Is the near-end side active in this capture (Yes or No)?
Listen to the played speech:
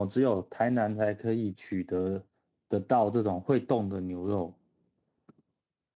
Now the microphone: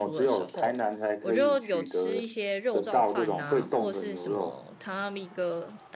Yes